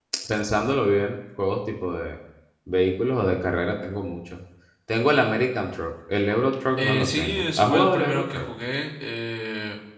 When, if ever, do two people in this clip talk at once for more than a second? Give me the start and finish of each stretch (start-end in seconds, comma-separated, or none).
6.8-8.5